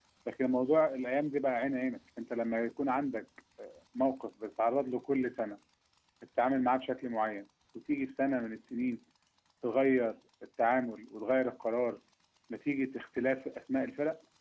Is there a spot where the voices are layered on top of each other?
No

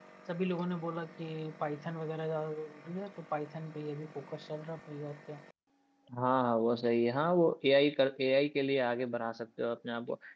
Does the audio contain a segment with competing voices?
No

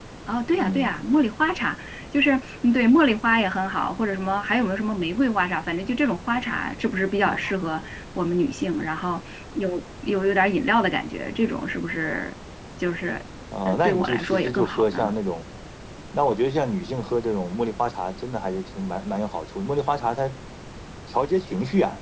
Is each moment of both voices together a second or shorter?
No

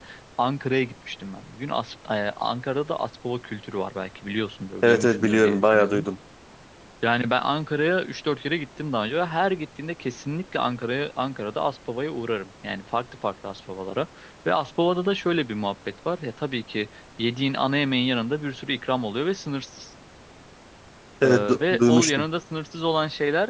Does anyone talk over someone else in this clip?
Yes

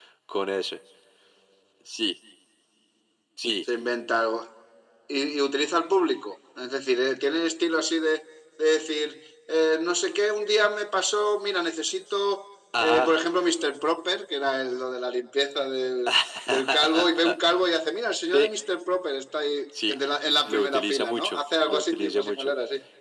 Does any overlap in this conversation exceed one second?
Yes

